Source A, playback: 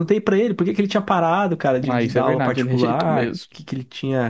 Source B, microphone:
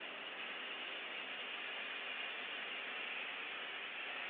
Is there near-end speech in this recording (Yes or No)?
No